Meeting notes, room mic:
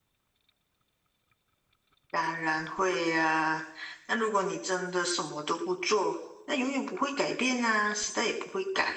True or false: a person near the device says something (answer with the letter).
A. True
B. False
B